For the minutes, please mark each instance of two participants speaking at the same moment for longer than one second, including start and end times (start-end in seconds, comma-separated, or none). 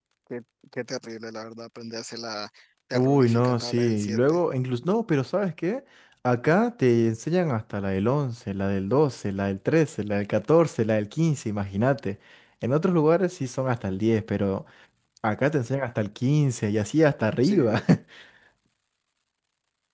2.9-4.4